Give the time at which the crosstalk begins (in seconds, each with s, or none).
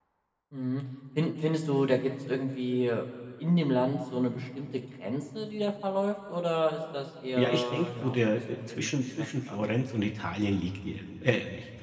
7.4 s